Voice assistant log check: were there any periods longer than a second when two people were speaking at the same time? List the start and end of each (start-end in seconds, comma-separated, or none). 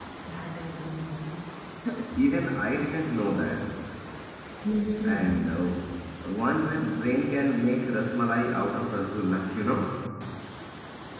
none